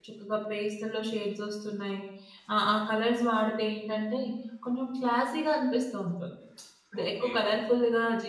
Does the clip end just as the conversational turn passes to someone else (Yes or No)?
No